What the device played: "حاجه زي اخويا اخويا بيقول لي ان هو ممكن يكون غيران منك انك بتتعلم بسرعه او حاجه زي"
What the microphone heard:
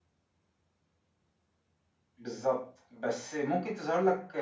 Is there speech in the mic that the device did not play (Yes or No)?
Yes